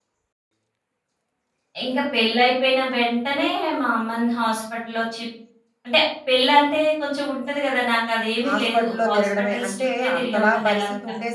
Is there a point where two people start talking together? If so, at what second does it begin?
8.4 s

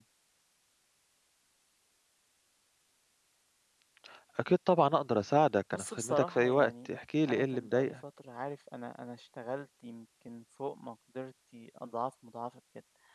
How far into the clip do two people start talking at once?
5.7 s

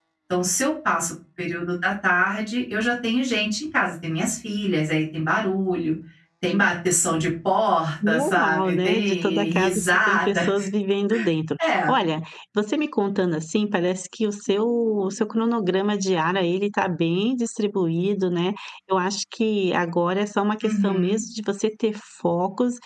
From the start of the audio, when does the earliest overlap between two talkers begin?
8.1 s

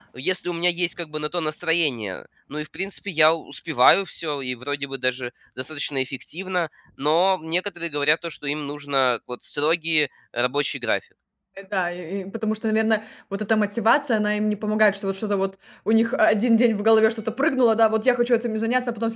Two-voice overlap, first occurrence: none

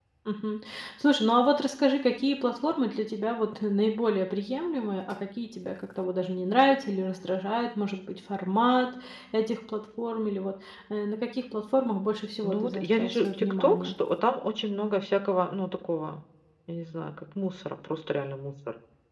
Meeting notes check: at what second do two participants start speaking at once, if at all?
12.4 s

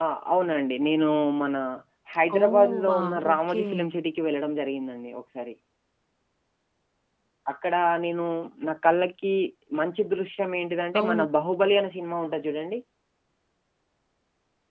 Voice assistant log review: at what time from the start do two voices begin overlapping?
2.4 s

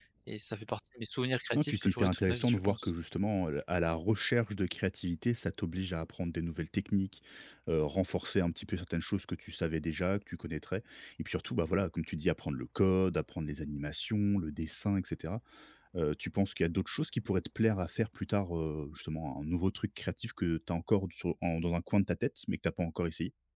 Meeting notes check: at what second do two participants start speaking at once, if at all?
1.6 s

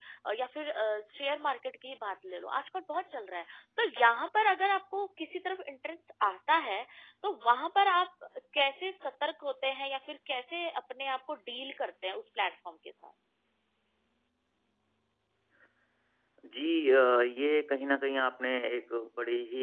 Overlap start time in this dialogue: none

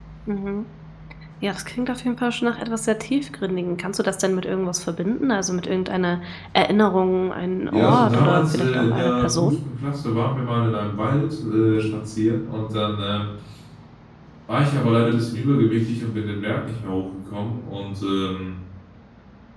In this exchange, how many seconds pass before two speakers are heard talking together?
7.7 s

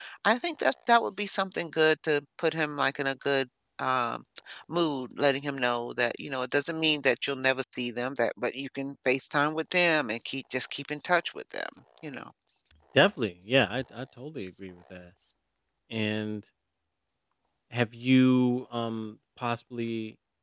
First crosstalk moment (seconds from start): none

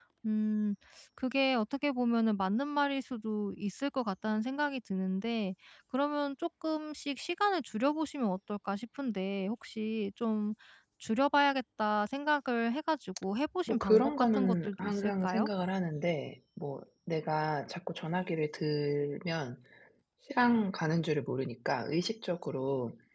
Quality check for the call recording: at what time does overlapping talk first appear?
13.7 s

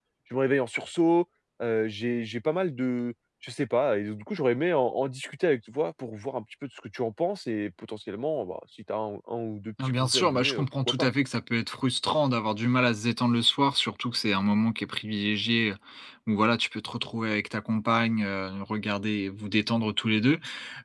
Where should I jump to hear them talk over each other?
9.8 s

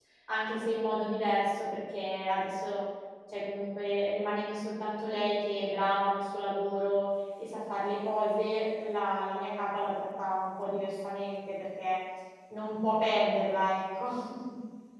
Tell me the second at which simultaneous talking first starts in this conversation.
none

